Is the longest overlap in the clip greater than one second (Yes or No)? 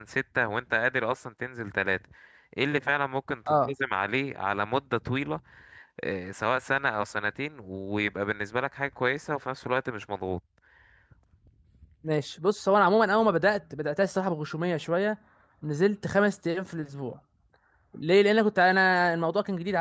No